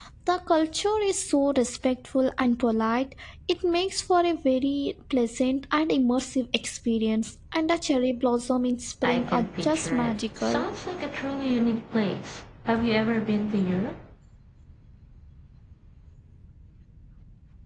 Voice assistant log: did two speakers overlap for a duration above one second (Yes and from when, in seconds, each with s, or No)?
Yes, from 9.0 s